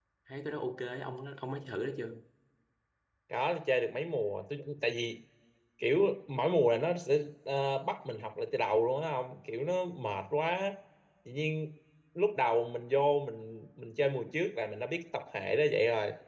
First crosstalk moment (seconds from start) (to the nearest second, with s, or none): none